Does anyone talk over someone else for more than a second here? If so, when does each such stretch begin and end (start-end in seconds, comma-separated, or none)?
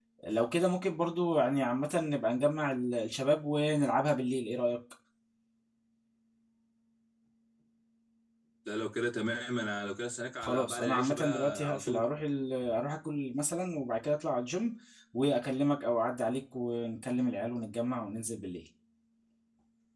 10.4-12.0